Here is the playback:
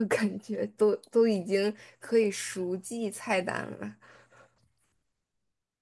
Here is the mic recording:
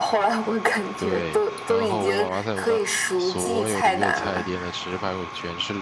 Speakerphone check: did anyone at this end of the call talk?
Yes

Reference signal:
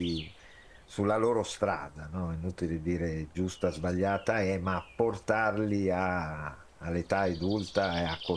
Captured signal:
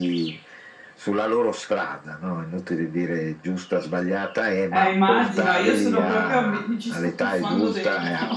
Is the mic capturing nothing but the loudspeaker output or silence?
No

